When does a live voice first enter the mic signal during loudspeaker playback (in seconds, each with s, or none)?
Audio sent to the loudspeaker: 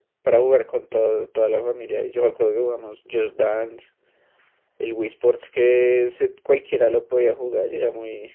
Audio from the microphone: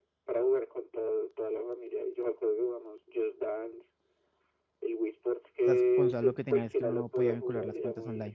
5.6 s